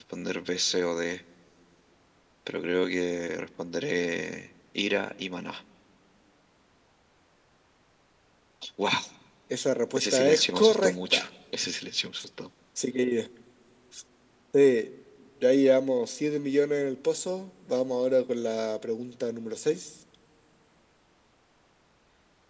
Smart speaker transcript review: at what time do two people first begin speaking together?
10.0 s

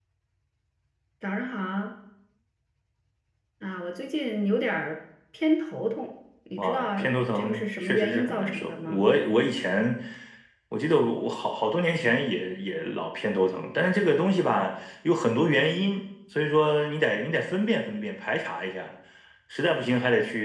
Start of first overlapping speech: 6.6 s

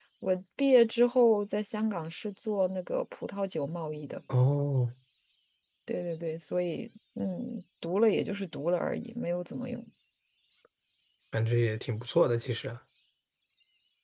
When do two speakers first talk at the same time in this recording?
none

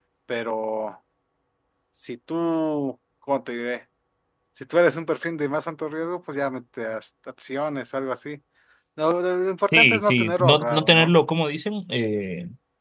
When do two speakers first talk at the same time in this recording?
9.7 s

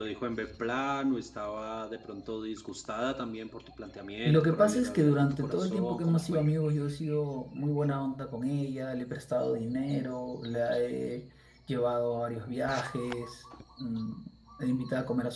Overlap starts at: 4.2 s

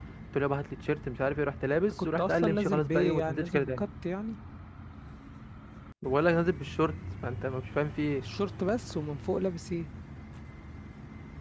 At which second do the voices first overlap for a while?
2.0 s

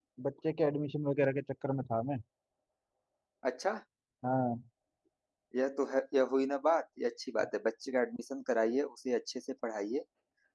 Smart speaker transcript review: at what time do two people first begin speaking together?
none

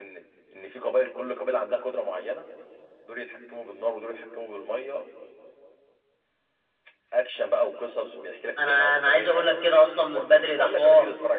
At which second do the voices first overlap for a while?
8.6 s

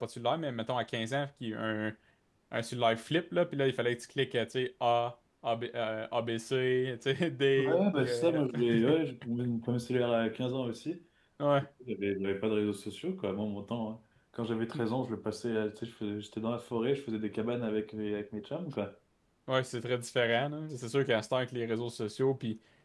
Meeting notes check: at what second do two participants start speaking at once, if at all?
7.6 s

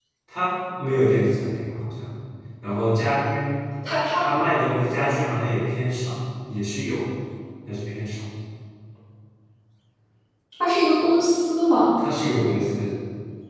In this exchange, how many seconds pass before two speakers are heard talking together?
none

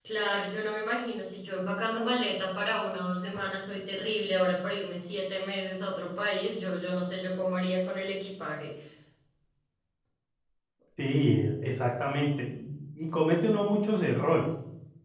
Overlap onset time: none

